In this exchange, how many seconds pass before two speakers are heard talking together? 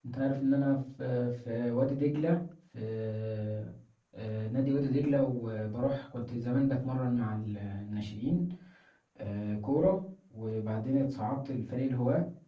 none

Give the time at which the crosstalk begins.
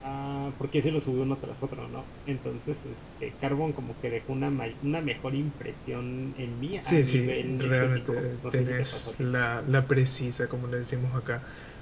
6.8 s

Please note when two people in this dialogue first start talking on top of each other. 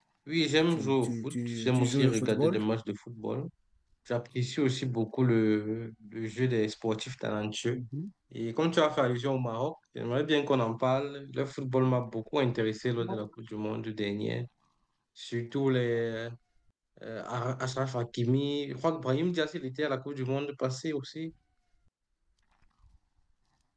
0.7 s

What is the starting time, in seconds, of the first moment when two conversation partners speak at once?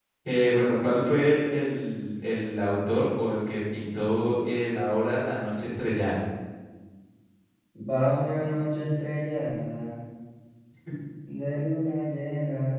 none

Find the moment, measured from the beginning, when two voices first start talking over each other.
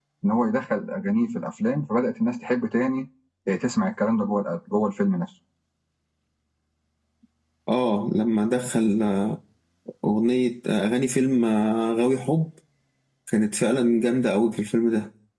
none

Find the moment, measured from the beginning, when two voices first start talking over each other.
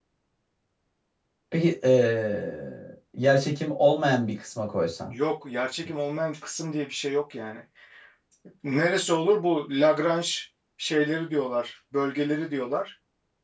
none

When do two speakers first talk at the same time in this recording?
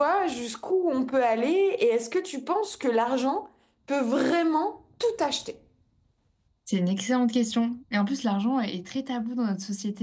none

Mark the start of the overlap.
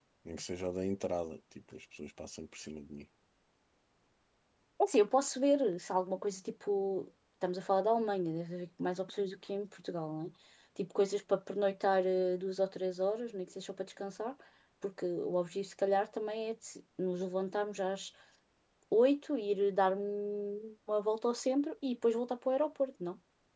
none

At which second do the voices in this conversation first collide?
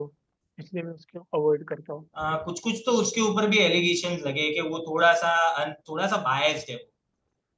none

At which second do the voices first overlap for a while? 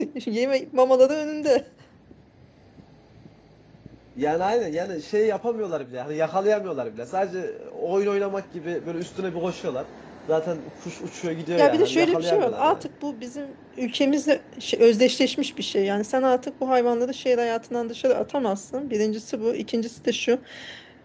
11.6 s

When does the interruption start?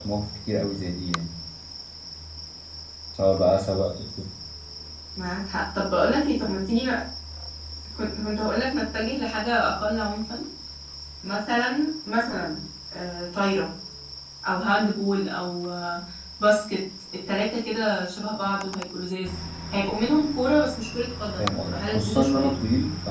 21.4 s

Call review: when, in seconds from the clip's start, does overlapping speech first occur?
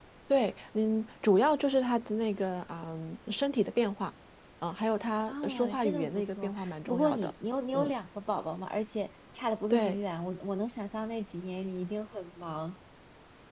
5.3 s

